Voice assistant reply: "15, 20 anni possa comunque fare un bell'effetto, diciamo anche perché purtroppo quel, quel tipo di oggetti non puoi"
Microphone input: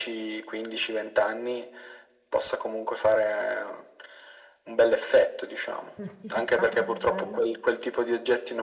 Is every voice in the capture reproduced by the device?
No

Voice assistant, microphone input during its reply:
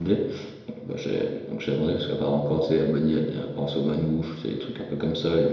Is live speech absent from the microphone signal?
No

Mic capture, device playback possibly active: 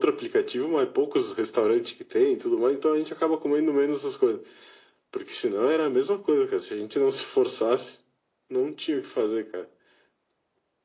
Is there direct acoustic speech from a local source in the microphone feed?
No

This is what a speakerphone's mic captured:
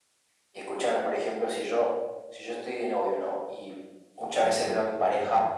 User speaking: Yes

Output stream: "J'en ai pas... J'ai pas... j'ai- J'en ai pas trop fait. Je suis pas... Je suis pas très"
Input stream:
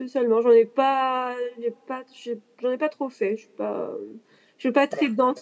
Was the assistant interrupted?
No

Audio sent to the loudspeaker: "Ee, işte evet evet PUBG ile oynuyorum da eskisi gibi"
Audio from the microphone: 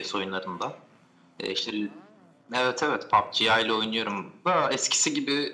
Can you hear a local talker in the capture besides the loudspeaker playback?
No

